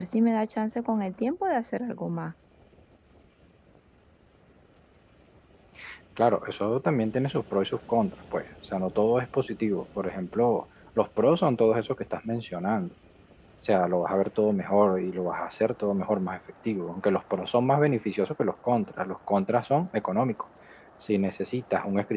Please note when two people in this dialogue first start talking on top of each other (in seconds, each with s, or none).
none